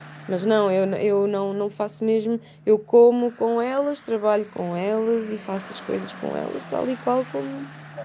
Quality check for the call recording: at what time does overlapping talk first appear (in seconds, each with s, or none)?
none